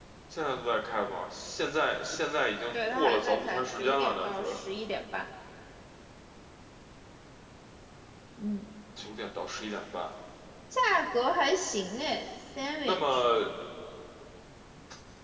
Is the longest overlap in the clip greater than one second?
Yes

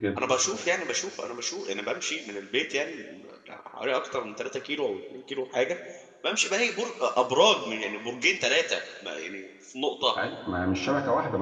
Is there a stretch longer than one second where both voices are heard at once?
No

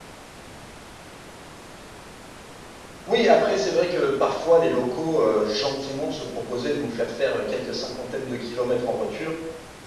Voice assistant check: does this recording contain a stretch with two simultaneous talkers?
No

